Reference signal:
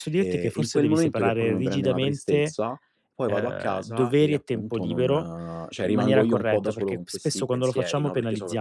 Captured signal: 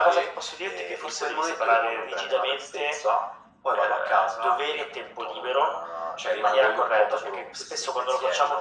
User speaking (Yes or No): No